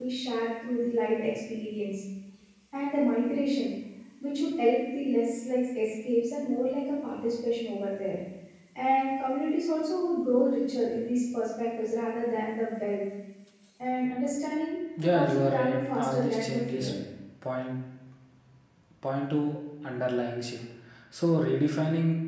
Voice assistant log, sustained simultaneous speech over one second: present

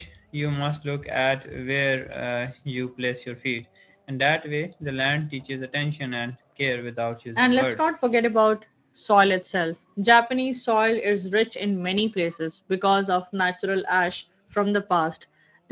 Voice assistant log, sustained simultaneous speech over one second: none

